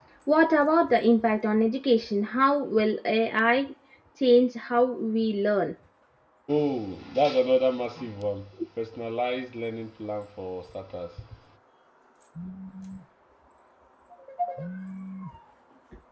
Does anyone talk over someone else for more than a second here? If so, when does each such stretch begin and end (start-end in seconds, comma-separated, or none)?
none